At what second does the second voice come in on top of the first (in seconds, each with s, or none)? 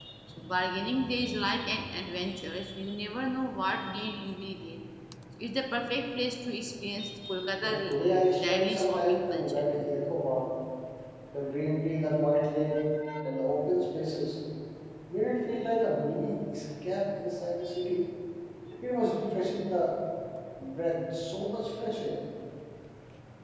7.6 s